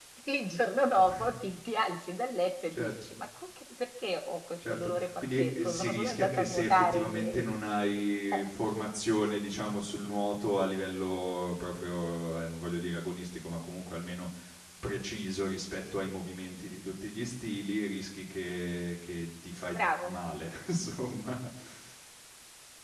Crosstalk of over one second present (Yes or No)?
Yes